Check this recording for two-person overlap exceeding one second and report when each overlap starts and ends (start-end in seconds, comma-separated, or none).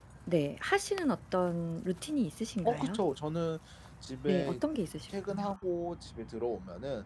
none